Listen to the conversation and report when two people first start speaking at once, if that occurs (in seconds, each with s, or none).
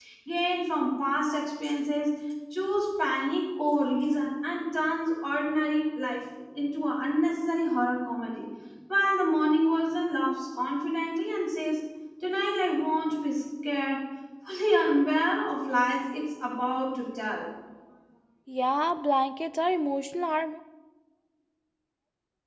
none